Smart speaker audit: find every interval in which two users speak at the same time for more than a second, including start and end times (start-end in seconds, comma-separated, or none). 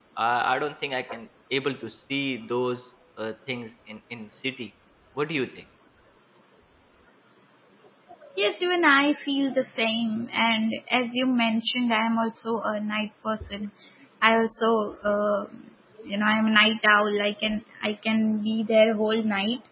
none